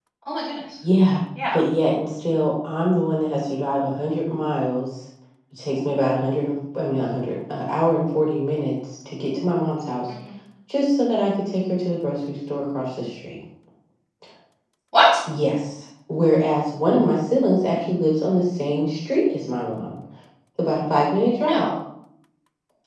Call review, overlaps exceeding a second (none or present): none